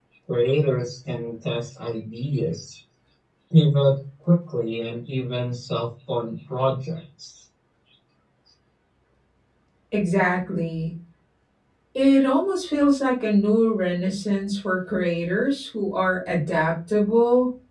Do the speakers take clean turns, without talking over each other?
Yes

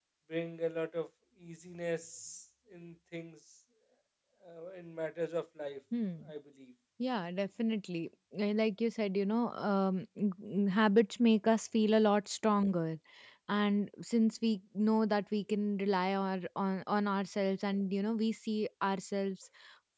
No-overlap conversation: Yes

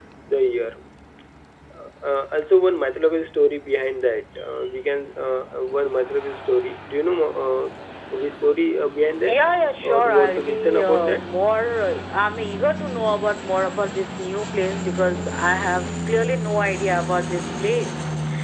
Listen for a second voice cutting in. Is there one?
Yes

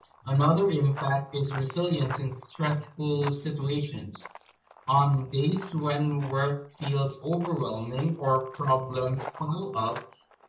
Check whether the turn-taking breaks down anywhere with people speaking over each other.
No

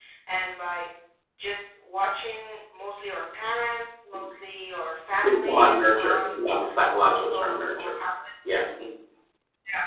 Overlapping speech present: Yes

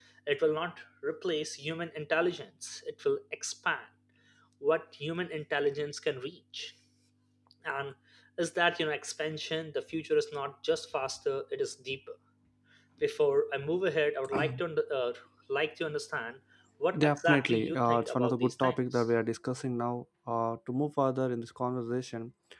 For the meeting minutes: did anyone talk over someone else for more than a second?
Yes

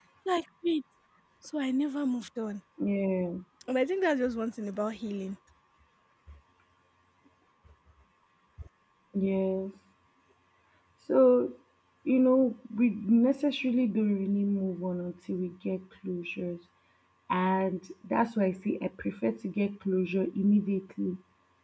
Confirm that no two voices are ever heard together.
Yes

